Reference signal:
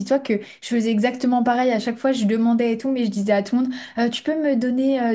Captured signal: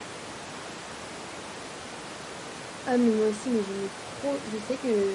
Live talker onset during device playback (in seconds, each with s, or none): 2.9 s